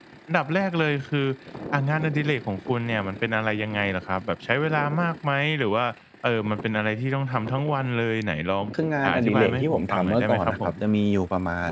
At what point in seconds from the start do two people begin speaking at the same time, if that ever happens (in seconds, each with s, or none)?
9.0 s